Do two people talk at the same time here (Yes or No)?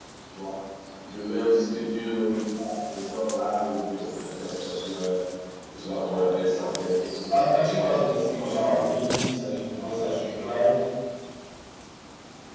Yes